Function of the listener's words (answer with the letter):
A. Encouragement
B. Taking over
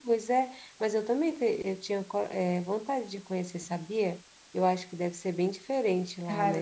B